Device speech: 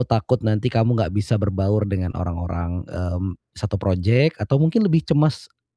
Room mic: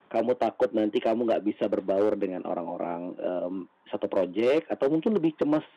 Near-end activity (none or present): none